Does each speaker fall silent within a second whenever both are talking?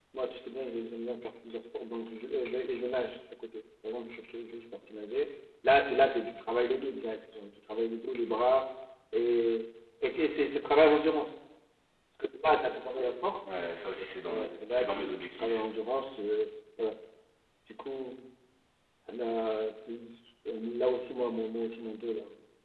No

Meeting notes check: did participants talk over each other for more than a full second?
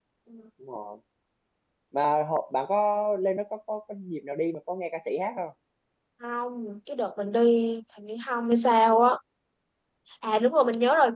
No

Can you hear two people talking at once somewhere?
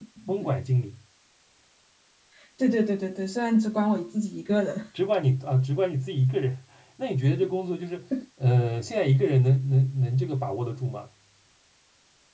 No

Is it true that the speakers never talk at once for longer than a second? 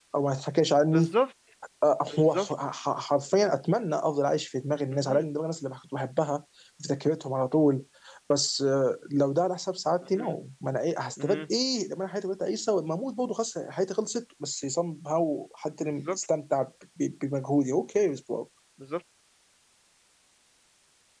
Yes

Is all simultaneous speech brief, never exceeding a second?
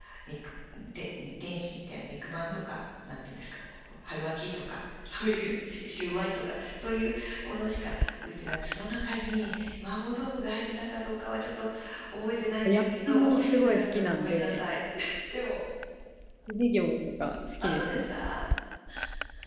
No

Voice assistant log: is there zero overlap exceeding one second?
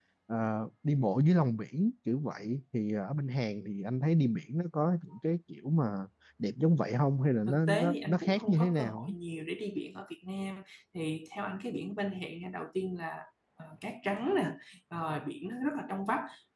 No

